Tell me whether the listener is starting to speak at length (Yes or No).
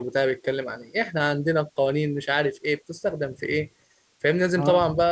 No